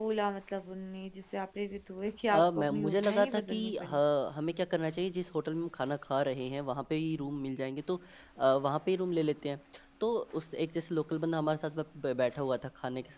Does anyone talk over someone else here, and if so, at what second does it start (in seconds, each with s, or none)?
2.3 s